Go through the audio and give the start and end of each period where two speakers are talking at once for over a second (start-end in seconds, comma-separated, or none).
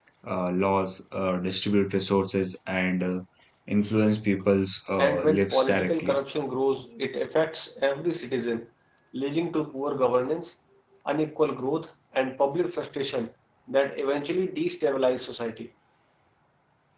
5.0-6.2